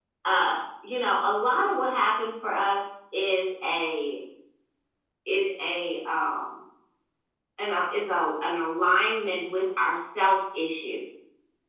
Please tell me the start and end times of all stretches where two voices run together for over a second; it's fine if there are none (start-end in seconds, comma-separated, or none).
none